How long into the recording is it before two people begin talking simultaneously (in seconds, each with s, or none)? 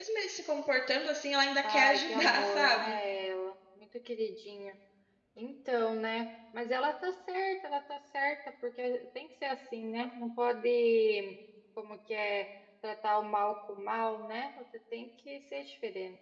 1.6 s